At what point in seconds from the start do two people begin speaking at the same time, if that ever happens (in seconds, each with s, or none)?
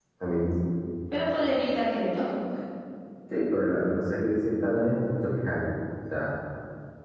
none